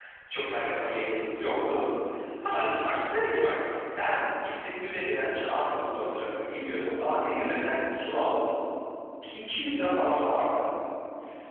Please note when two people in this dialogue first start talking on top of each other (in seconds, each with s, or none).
none